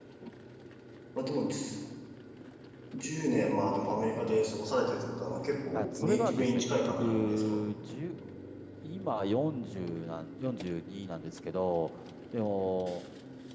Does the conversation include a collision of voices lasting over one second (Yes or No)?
Yes